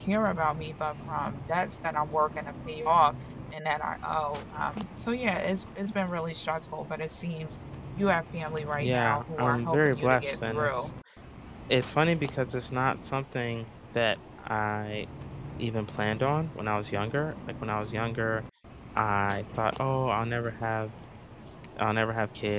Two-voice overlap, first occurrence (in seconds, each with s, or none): 8.8 s